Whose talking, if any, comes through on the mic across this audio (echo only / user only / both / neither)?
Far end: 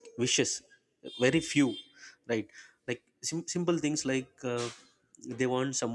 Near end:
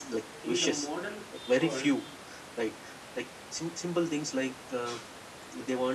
both